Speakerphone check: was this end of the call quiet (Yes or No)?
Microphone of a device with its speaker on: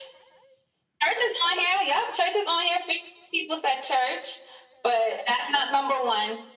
Yes